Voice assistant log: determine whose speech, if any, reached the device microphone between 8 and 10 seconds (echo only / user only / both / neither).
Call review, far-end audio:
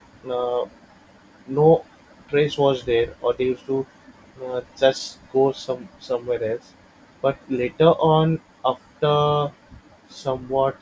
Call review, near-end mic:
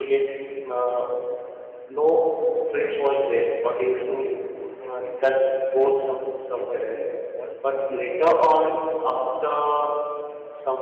both